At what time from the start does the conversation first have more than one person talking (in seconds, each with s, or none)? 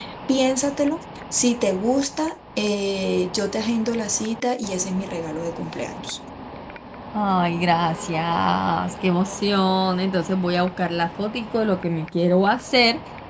none